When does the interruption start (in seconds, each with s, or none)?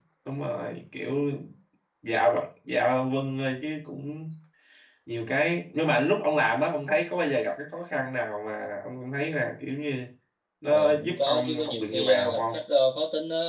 10.7 s